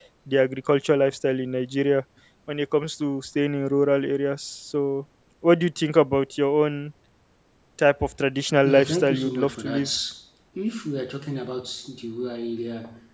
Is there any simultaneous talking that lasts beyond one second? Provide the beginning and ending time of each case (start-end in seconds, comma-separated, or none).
8.6-9.8